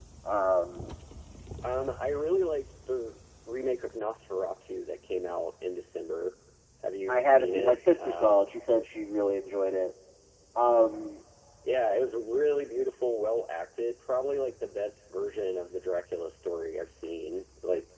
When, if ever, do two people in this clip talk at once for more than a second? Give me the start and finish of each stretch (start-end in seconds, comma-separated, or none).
7.1-8.4